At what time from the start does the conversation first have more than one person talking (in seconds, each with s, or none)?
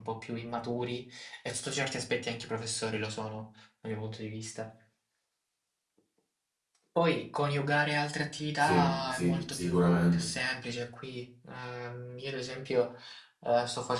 8.6 s